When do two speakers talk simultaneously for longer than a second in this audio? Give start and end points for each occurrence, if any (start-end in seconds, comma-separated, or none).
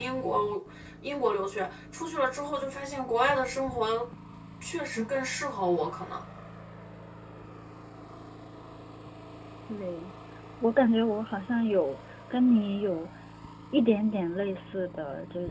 none